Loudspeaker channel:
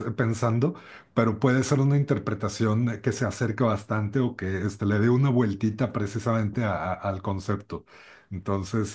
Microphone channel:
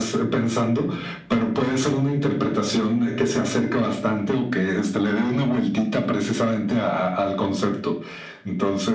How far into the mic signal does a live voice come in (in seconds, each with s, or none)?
none